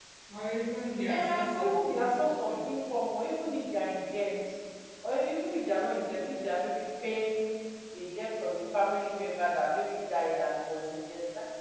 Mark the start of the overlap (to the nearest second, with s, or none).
1 s